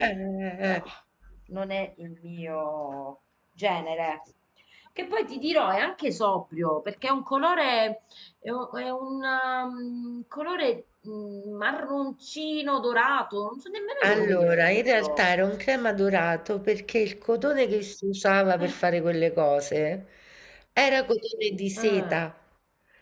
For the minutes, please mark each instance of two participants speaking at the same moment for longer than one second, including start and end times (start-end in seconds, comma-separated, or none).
14.0-15.3